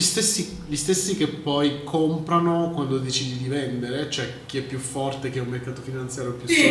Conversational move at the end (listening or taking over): taking over